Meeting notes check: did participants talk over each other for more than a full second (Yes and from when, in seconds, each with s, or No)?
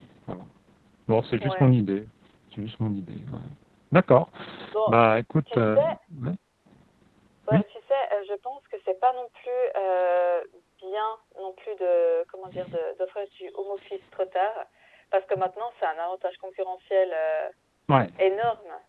No